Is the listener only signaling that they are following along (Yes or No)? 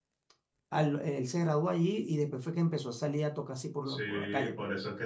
No